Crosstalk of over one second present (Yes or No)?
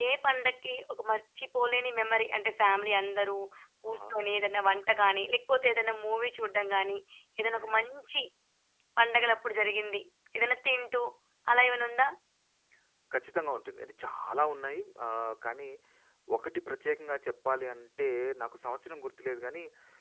No